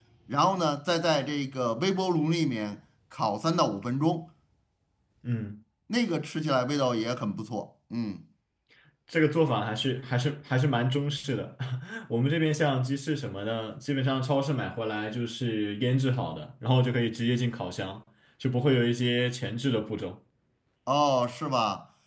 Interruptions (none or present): none